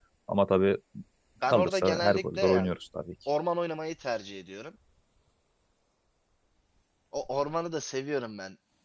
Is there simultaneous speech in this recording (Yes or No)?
Yes